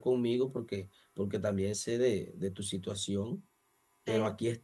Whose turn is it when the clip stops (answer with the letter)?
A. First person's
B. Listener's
A